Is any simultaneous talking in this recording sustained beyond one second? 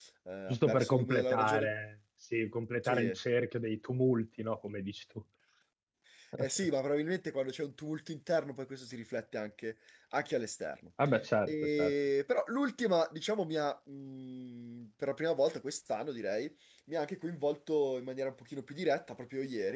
Yes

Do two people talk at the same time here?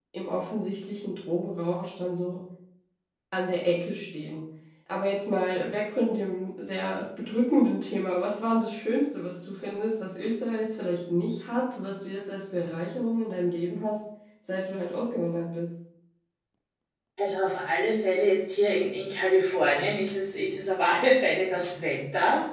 No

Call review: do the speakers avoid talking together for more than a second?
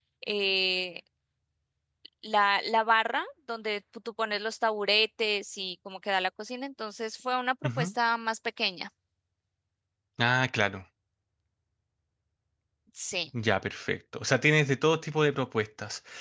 Yes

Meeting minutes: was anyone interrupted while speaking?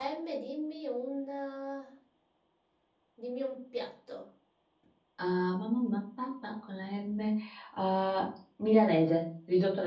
No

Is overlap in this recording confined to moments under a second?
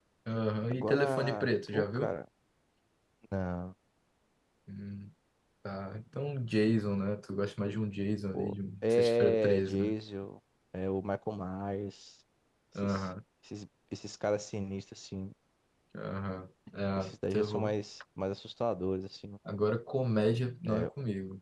No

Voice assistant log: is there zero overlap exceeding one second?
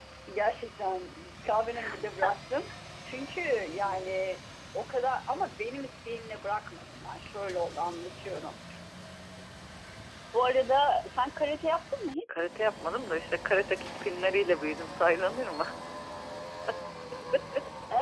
Yes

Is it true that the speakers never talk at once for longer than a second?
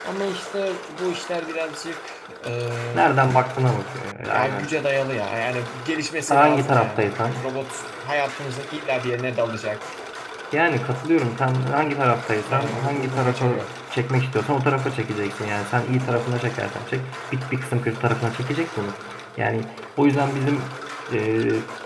No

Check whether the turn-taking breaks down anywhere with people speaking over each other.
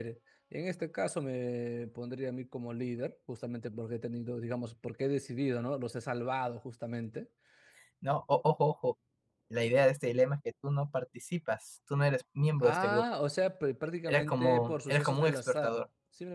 Yes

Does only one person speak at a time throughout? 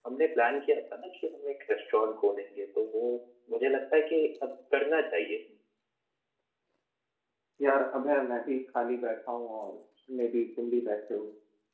Yes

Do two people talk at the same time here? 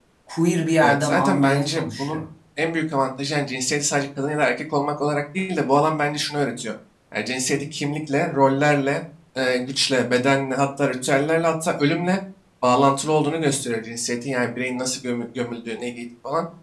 Yes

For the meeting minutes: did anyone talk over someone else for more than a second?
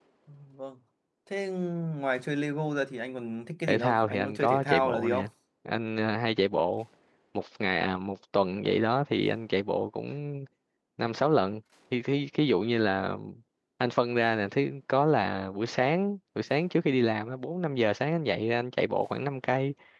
Yes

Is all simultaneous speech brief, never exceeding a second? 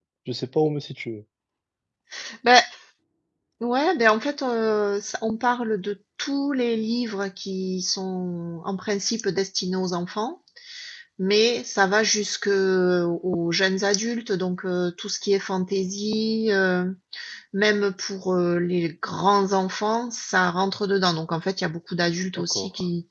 Yes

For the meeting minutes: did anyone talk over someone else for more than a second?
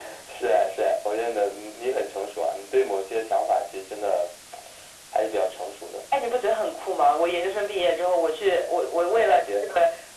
No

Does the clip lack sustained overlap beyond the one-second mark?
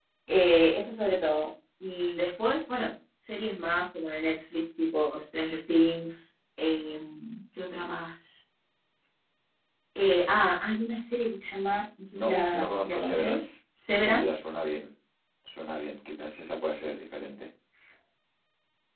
No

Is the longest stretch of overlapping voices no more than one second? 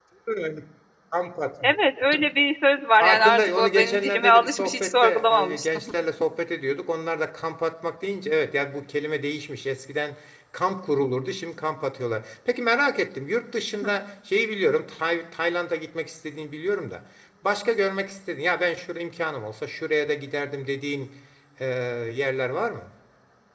No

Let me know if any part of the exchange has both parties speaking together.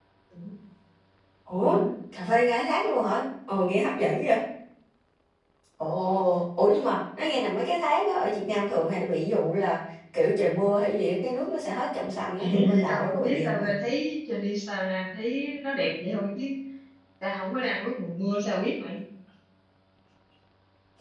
Yes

